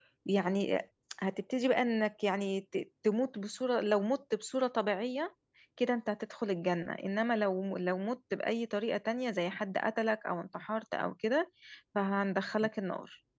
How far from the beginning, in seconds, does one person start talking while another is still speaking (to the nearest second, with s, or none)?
none